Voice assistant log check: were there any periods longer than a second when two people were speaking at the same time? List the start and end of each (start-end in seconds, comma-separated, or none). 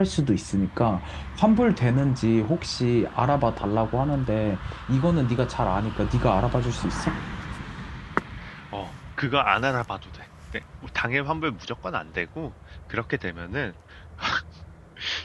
none